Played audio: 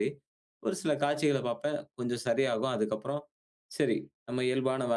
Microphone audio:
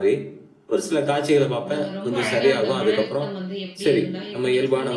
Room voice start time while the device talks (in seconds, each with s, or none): 1.6 s